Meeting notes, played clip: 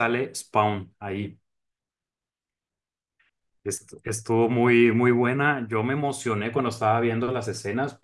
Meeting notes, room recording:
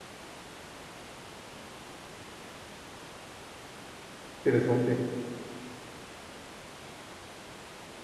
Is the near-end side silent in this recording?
No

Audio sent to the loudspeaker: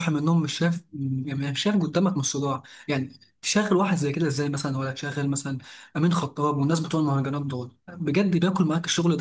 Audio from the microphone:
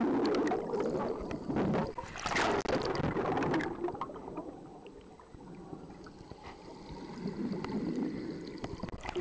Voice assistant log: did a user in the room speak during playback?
No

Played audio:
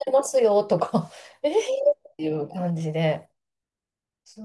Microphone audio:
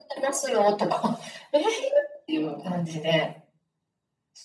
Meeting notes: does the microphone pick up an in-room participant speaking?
No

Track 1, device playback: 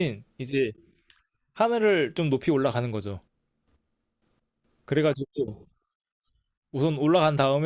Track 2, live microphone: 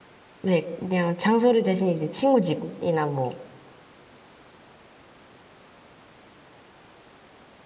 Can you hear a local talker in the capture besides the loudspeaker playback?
Yes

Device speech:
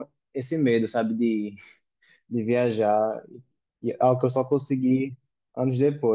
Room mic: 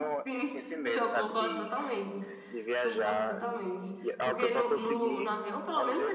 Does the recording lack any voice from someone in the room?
No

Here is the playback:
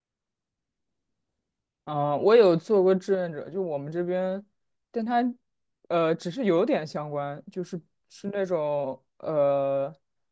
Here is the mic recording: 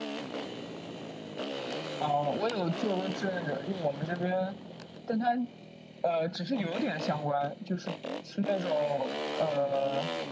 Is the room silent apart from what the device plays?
Yes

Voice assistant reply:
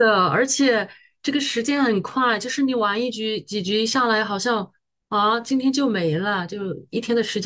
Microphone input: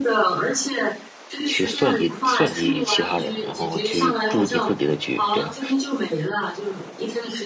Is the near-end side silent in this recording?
No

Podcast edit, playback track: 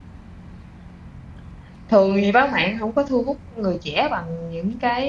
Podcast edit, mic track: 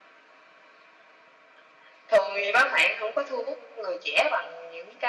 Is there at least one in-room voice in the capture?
No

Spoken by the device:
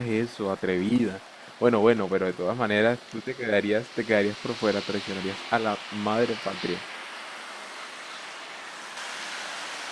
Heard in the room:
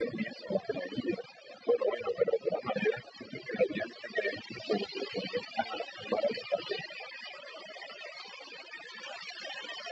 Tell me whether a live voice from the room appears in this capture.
No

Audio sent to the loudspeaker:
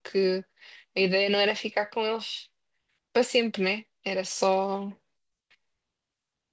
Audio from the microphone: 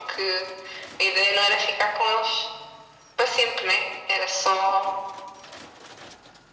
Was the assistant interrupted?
No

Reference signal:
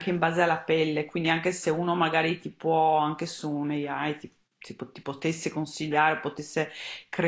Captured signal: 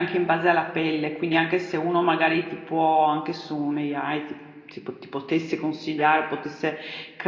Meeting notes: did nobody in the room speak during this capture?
Yes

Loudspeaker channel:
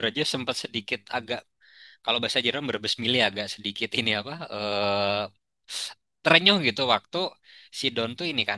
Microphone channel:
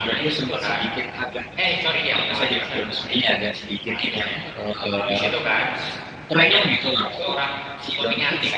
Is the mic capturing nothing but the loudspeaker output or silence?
No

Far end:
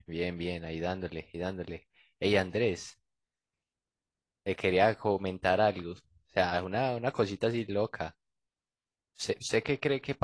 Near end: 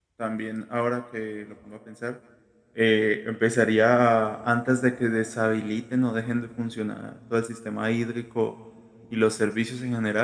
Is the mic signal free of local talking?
No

